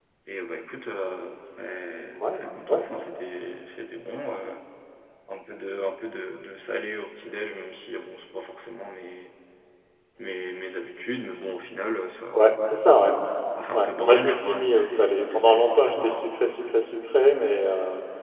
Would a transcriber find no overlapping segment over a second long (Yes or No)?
No